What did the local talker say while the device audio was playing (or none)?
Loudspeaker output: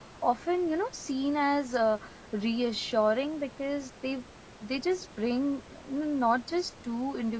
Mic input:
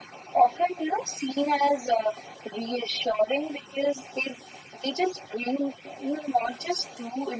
none